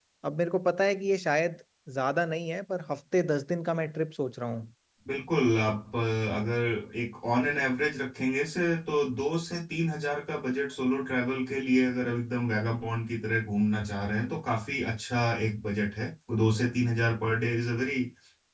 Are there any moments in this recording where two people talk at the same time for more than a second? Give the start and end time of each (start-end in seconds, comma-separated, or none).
none